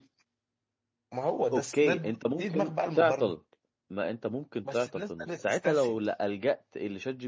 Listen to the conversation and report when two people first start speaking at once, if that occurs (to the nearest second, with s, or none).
2 s